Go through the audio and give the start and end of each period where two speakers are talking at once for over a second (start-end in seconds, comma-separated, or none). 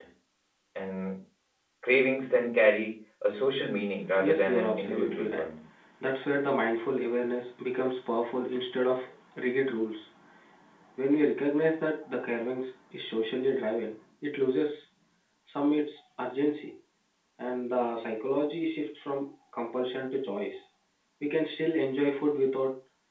4.2-5.4